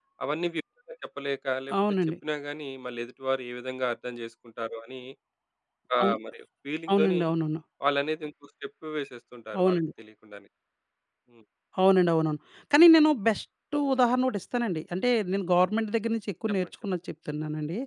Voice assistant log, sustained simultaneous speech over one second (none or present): none